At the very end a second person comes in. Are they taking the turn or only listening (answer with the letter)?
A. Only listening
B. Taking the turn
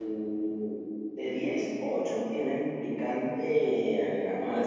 B